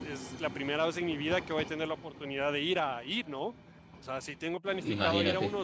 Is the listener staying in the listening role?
Yes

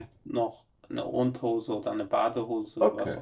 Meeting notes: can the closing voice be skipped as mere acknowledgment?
No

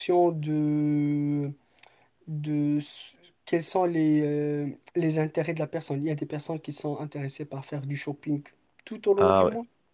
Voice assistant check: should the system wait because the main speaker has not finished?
Yes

